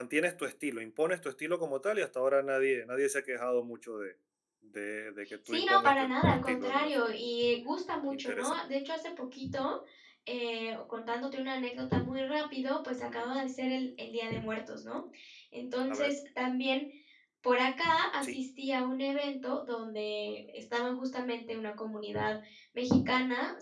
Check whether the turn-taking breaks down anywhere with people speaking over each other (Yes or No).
Yes